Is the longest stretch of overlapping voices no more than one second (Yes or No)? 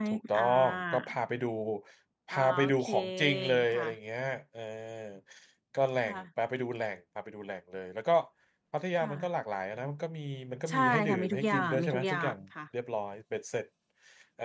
No